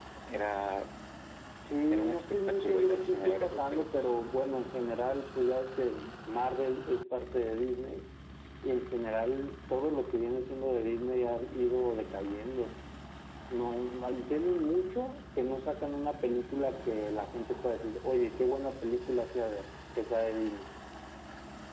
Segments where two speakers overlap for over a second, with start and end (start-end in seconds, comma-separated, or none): 1.9-4.3